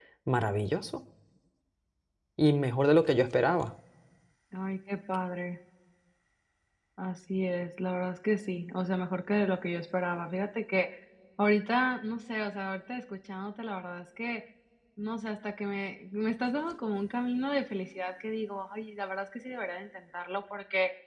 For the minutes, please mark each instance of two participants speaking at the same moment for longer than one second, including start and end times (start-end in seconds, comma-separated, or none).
none